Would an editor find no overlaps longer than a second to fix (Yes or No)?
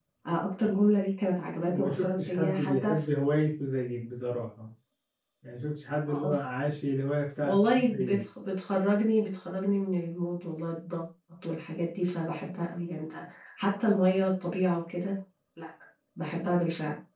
No